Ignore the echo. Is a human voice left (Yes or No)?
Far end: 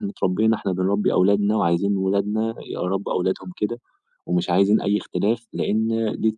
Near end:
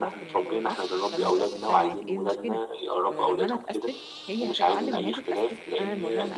Yes